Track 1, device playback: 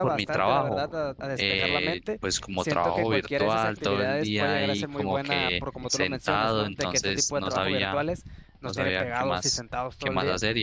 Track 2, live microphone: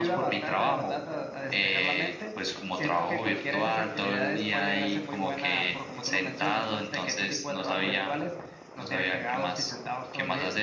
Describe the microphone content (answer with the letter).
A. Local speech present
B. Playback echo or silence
B